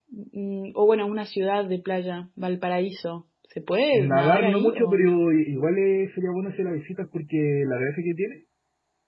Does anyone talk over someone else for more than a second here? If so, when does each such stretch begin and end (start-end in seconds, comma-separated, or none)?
3.9-5.2